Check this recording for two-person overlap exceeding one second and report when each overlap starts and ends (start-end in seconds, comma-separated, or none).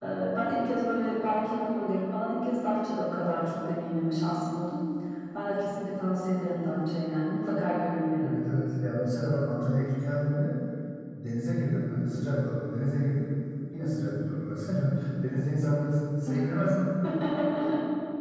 none